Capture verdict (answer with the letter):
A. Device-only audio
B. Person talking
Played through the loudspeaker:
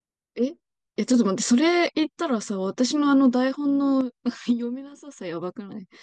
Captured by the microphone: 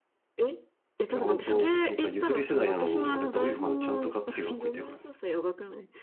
B